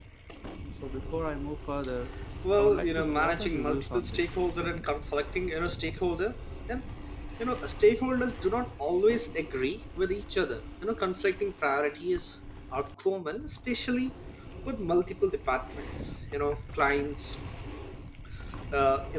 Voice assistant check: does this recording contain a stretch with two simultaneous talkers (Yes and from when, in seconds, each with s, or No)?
Yes, from 2.6 s